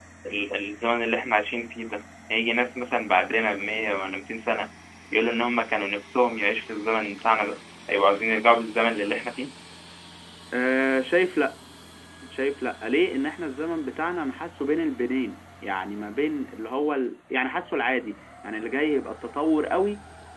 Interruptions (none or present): none